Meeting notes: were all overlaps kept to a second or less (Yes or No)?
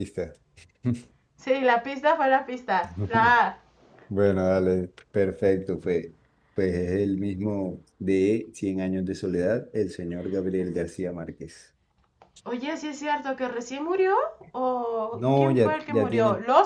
No